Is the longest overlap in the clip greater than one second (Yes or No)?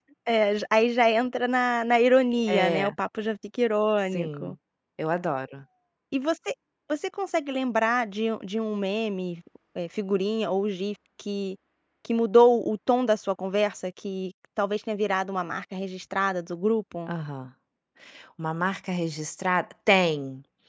No